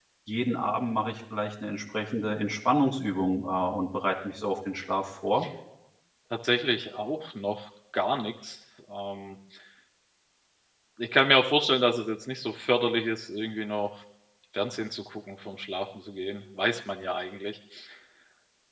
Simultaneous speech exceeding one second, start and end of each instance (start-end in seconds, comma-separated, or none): none